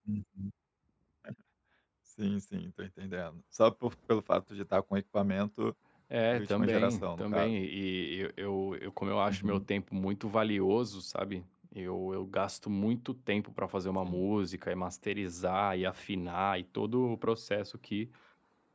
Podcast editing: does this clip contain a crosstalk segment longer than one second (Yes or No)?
Yes